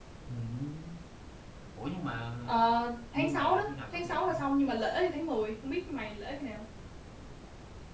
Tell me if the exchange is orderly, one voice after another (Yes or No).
No